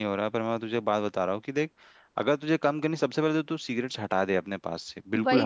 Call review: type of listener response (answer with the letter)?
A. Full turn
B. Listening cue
A